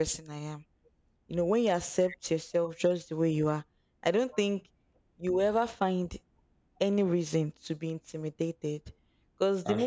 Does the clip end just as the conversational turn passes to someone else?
No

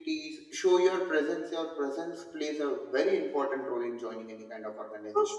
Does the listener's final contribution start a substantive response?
Yes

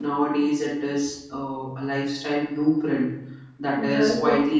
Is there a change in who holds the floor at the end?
No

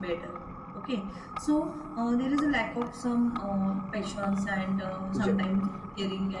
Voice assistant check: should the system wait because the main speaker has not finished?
Yes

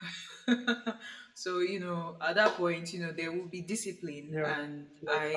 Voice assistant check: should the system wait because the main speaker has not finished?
No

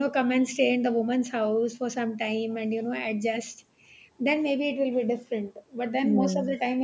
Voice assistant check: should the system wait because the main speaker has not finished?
Yes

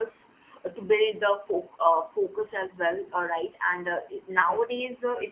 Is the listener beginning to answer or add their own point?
No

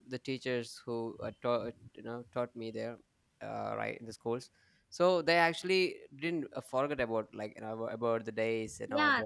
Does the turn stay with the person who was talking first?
No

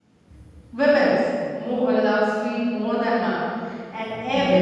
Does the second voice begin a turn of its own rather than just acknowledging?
No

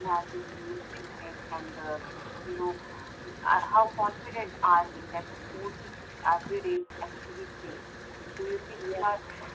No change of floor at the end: Yes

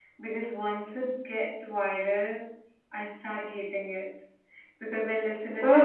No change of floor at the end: Yes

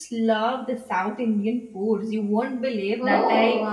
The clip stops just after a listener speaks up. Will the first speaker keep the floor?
Yes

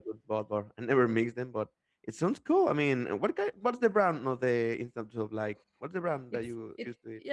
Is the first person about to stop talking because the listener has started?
Yes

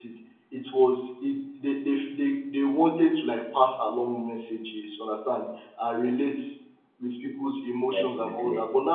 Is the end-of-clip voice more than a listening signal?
No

